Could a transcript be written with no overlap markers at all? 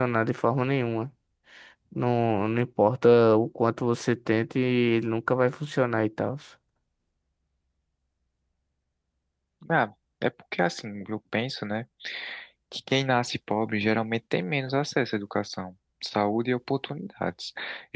Yes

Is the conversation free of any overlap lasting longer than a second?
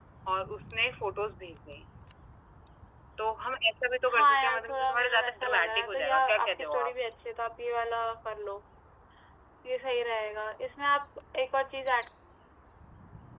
No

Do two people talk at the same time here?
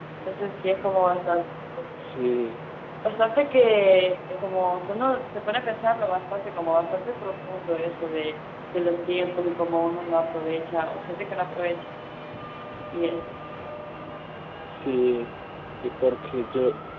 No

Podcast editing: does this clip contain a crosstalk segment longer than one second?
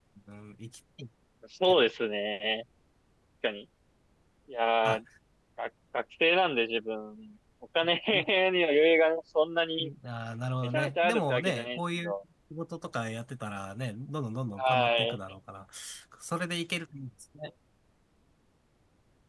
Yes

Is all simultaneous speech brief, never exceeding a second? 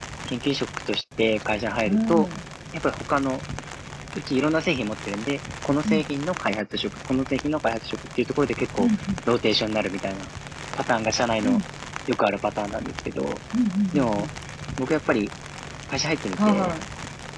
Yes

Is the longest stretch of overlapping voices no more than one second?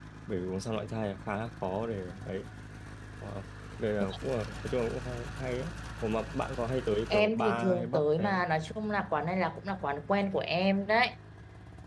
No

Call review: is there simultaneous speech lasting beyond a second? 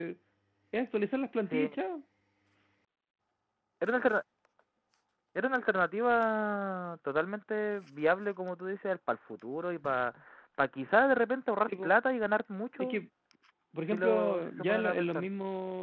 Yes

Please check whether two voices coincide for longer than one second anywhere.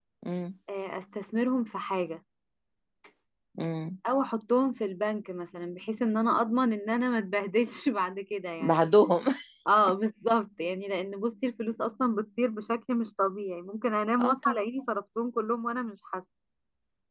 No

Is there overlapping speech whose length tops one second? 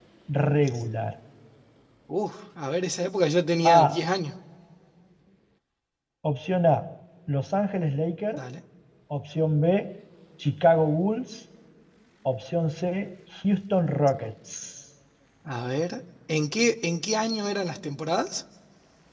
No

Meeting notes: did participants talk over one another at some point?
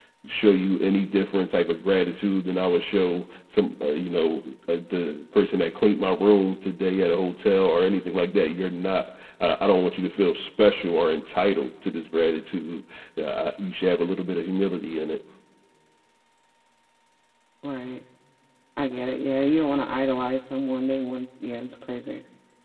No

